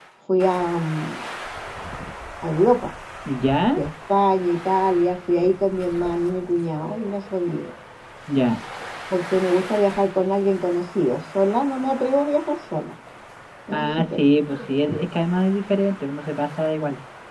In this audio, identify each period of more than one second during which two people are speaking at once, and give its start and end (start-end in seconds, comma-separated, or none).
none